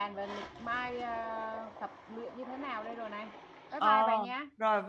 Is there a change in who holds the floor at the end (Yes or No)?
Yes